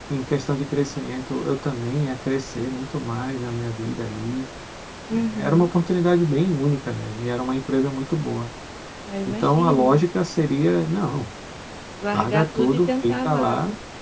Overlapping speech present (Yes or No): Yes